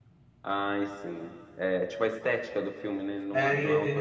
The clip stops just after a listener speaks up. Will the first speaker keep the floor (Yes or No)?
No